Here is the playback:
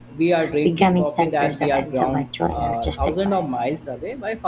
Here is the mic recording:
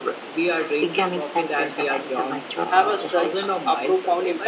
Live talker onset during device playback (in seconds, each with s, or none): 2.7 s